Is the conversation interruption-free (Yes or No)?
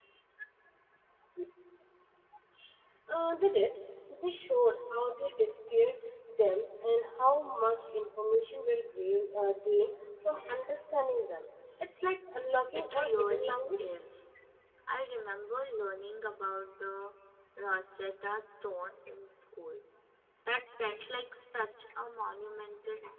No